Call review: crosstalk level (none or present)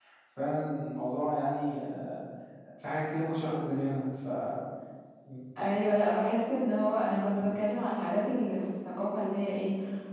none